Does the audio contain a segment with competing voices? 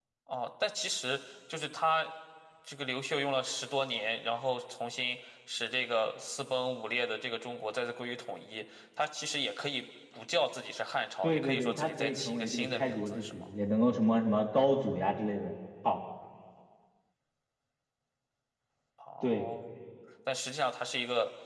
Yes, from 11.2 s

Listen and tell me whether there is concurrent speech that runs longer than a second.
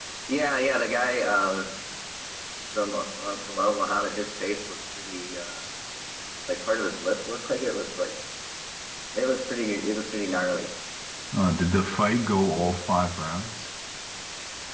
No

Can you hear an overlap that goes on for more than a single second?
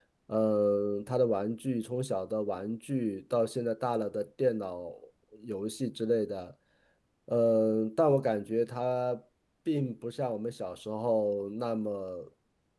No

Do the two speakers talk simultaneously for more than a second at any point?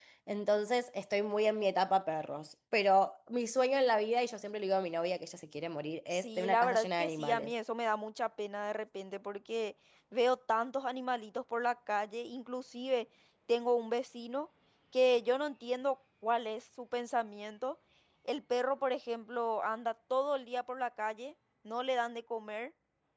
Yes, from 6.1 s

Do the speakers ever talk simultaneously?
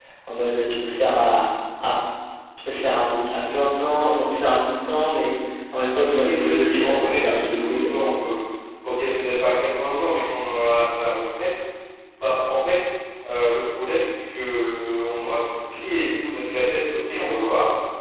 Yes, from 6.0 s

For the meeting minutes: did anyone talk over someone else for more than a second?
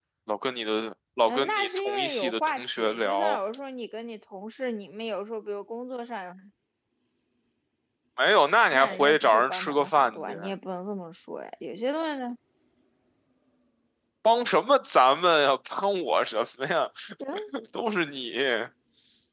Yes, from 1.3 s

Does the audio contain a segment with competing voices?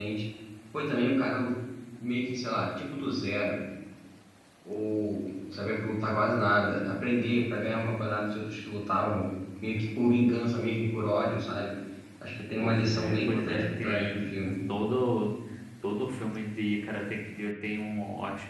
Yes, from 12.6 s

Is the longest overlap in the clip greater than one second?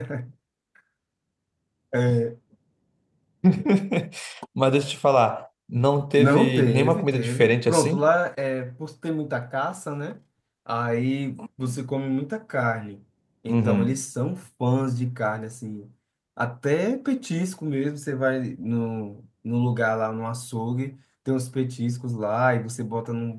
Yes, from 6.2 s

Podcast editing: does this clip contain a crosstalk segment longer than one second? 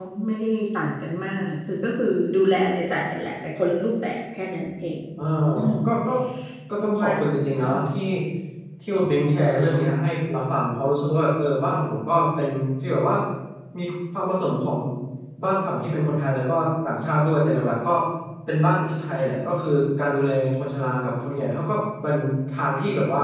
No

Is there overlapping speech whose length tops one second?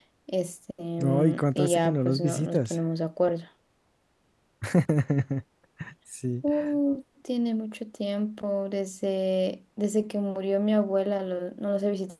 Yes, from 1.0 s

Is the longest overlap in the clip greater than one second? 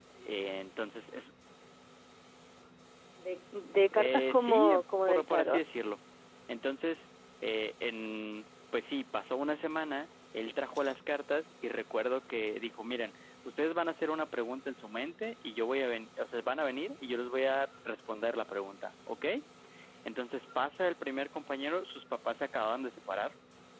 Yes, from 3.9 s

